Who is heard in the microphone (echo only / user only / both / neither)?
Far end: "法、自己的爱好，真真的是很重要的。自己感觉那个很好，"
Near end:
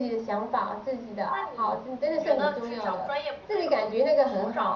both